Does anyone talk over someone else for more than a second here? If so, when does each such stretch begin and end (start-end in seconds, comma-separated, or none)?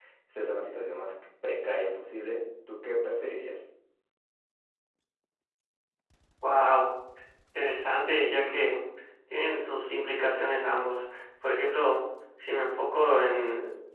none